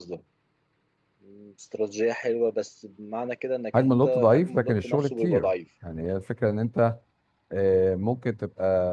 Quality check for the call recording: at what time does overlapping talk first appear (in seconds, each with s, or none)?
3.7 s